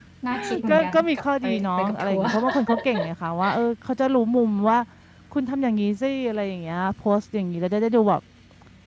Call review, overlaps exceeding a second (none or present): present